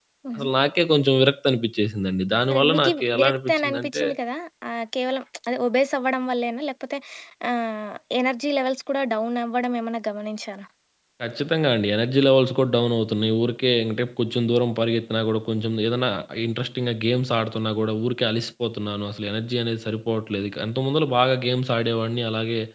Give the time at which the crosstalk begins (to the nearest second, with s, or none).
2 s